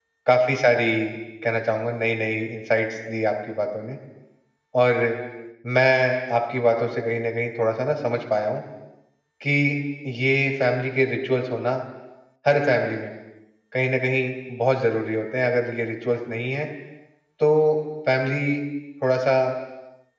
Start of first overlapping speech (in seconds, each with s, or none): none